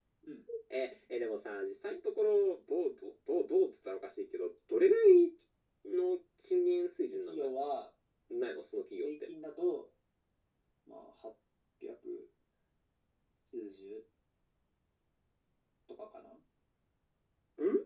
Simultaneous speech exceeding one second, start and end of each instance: none

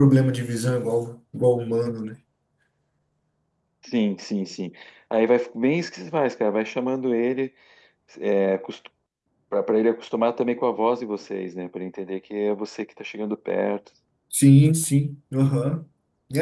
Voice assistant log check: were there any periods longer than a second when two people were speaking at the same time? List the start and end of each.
none

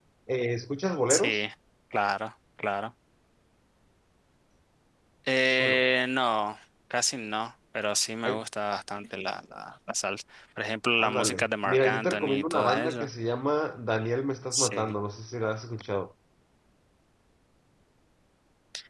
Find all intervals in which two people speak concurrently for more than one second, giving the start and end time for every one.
11.0-13.1

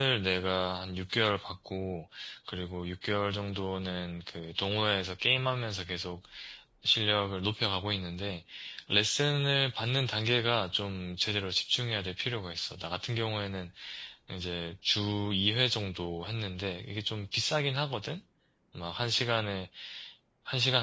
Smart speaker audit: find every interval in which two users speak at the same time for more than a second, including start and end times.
none

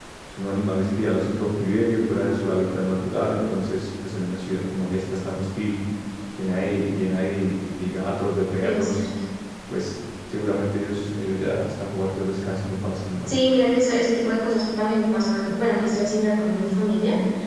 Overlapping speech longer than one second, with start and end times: none

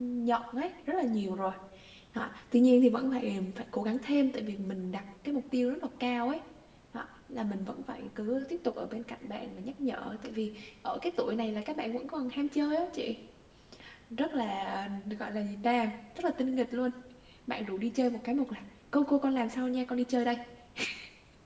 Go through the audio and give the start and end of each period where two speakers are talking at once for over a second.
none

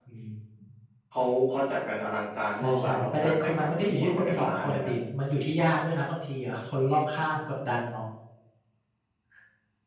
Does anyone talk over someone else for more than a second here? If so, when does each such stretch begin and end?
2.6-4.9

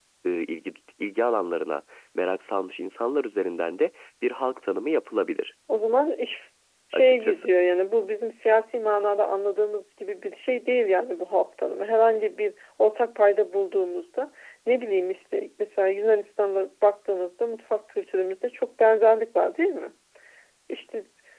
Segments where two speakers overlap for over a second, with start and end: none

